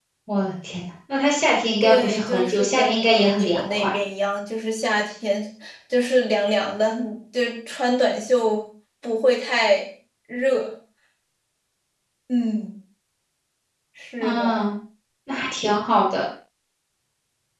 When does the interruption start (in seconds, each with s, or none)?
1.8 s